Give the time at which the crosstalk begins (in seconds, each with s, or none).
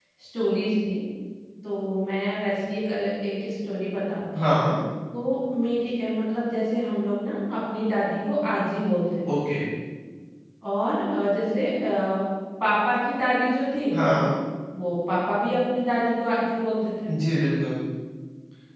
none